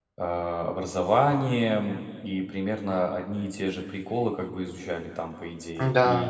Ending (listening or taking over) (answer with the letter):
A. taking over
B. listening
B